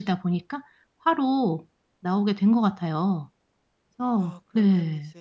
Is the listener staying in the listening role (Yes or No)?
No